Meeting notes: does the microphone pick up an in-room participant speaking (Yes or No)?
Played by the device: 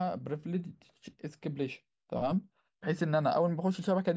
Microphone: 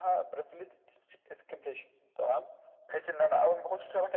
No